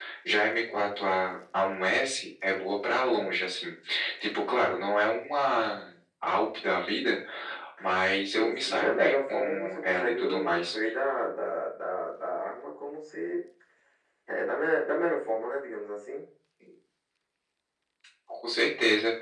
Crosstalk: present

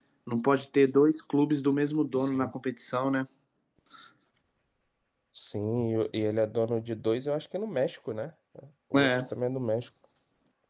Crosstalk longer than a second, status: none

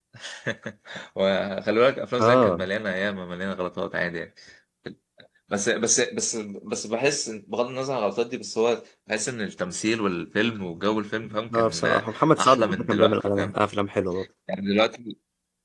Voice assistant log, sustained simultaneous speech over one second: present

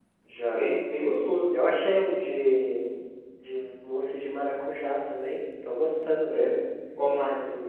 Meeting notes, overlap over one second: none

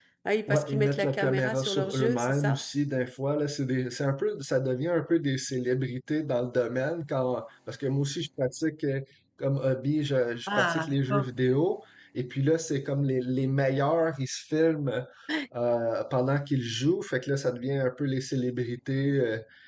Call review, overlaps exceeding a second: present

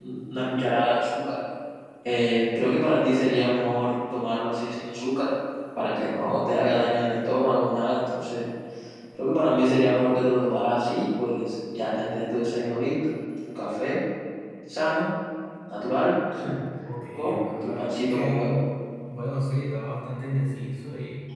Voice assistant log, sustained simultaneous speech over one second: present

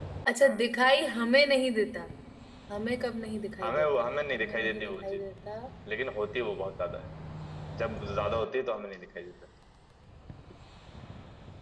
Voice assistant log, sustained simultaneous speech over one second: present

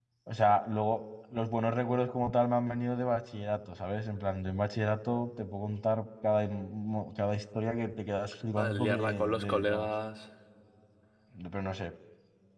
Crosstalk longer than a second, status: present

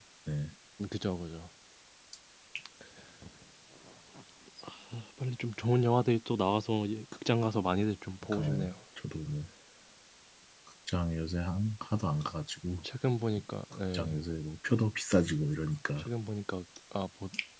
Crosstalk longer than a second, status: none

